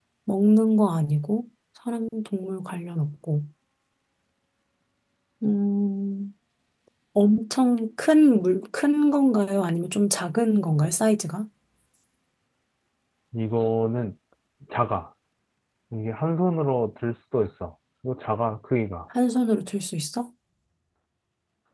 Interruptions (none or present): none